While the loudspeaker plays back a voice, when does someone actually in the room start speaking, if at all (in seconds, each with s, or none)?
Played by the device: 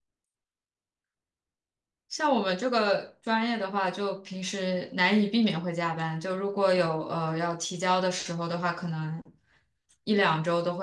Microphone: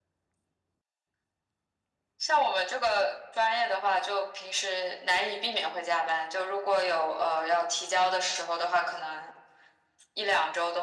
none